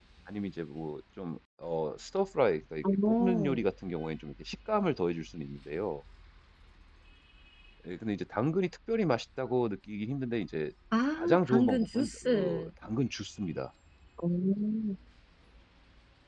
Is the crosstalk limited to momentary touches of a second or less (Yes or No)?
No